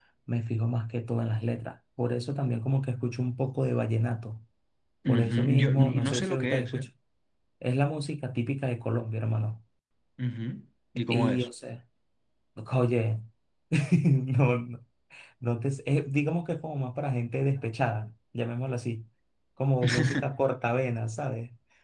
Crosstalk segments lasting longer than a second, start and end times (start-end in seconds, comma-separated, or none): 5.1-6.9